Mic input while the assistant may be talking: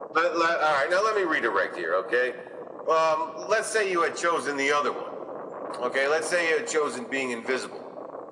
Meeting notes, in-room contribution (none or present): none